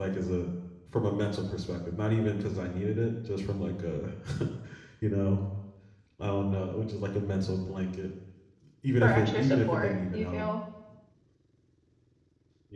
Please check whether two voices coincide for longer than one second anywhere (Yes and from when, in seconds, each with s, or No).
Yes, from 9.0 s